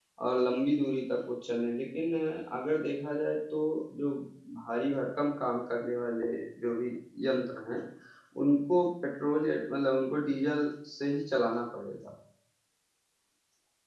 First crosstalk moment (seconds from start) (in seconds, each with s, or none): none